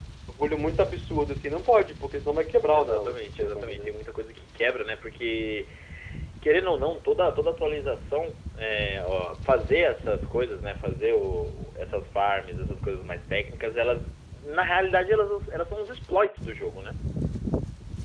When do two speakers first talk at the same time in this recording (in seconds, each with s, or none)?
2.7 s